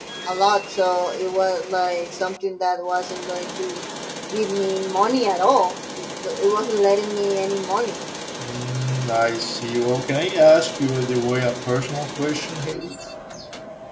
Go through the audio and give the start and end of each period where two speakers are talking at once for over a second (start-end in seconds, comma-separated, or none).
none